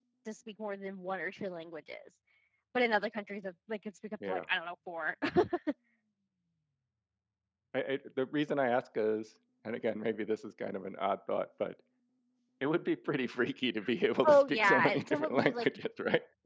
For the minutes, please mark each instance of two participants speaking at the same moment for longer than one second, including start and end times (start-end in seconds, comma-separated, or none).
14.2-15.7